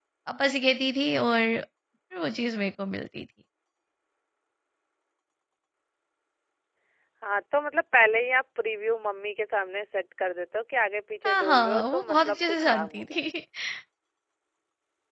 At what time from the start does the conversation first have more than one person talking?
11 s

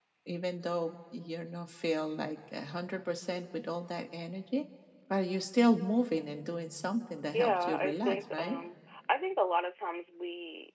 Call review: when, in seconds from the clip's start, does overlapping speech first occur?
7 s

